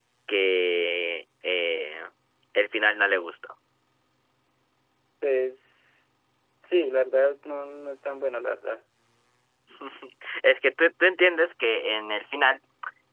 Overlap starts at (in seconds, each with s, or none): none